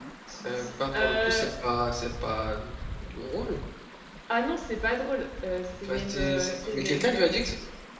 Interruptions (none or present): present